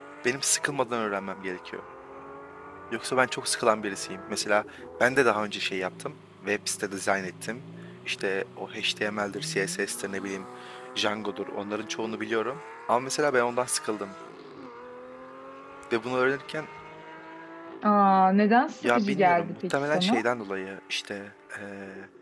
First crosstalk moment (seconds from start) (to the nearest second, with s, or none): 19 s